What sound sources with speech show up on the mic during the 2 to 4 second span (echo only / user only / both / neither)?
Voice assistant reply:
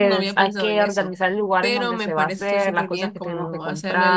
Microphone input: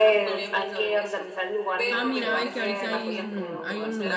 both